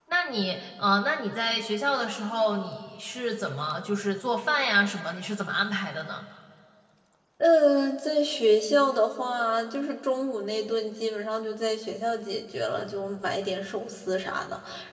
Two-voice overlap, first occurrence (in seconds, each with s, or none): none